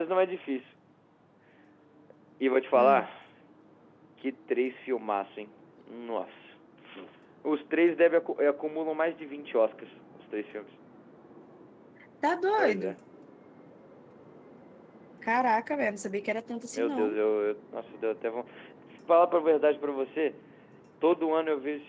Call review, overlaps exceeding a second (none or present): none